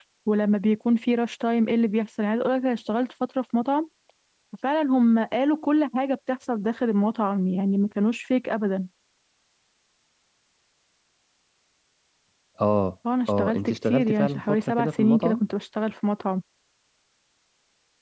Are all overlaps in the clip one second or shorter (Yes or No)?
No